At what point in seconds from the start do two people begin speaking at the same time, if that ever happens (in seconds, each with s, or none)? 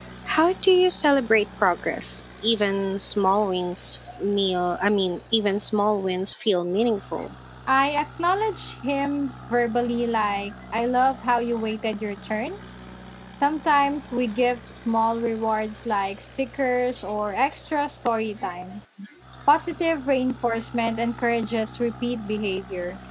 none